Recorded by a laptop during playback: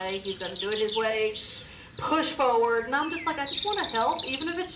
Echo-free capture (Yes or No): No